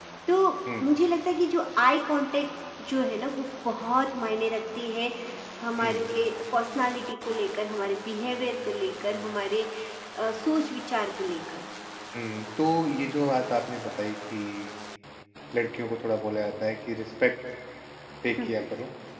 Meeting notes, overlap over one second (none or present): none